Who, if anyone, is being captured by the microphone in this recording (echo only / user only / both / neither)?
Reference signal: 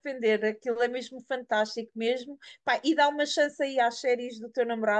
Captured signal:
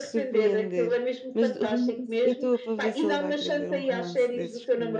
both